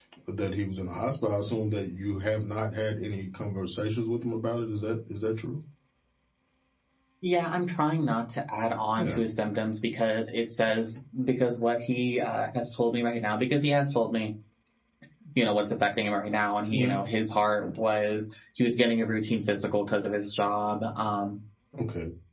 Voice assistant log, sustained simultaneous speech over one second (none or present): none